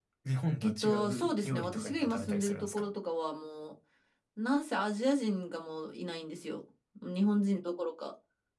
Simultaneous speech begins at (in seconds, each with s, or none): 0.6 s